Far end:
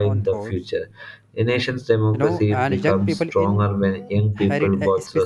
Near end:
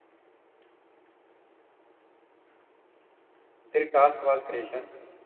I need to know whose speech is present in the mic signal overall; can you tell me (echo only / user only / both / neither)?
user only